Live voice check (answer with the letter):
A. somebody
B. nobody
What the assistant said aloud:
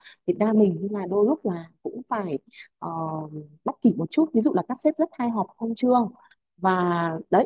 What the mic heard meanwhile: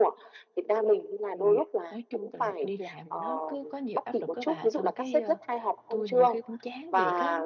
A